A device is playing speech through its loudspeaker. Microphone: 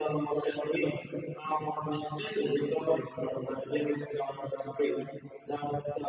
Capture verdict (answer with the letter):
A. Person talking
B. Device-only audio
B